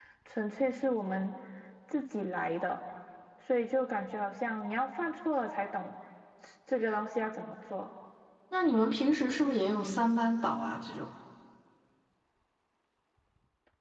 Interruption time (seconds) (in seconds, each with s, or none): none